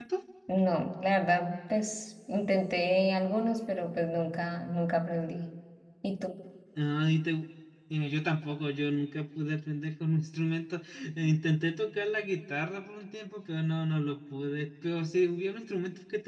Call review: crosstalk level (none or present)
none